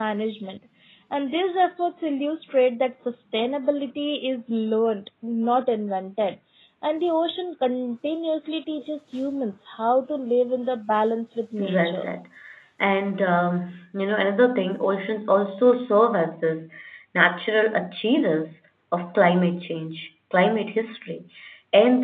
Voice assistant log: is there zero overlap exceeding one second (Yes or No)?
Yes